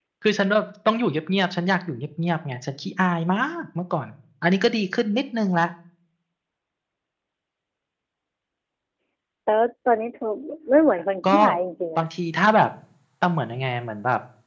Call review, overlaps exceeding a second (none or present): none